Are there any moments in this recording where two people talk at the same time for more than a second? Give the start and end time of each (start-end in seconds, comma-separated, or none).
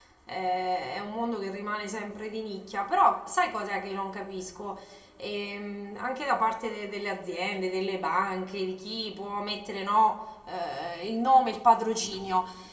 none